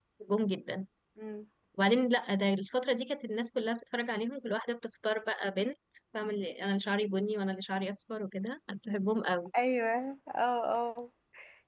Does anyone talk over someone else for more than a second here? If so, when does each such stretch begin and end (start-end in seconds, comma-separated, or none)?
none